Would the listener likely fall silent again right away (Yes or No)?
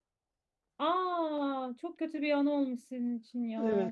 No